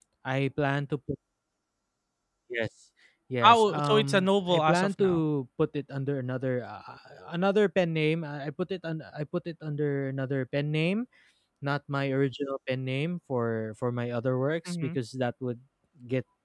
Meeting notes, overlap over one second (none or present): present